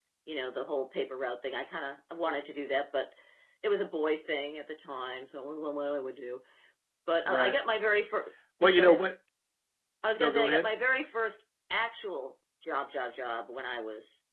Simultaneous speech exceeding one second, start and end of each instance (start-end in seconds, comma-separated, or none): none